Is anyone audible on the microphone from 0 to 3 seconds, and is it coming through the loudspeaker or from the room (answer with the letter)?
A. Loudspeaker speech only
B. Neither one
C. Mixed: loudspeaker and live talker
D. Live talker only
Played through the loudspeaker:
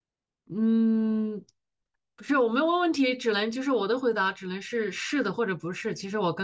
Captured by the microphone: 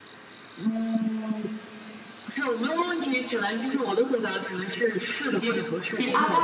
A